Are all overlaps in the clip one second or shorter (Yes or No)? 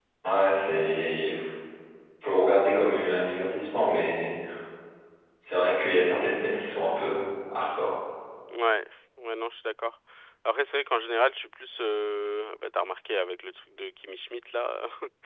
Yes